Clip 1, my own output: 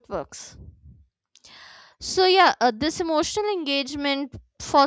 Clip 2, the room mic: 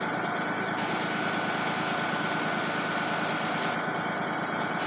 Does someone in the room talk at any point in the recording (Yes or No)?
No